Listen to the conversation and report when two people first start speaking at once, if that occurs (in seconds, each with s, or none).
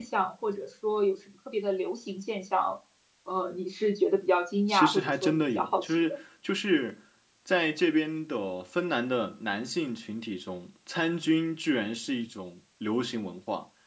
4.7 s